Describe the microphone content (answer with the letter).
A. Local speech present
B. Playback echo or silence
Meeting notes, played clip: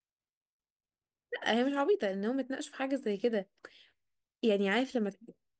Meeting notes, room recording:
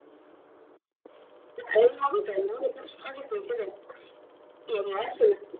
B